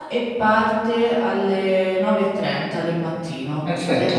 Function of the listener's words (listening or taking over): taking over